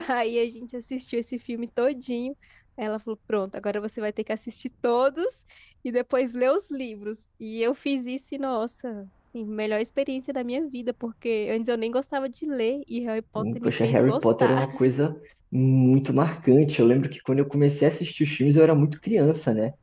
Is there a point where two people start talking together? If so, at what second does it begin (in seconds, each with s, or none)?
13.4 s